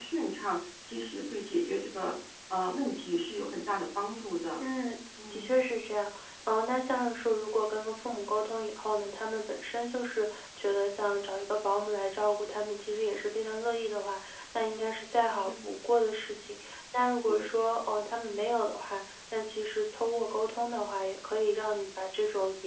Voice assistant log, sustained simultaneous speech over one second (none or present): none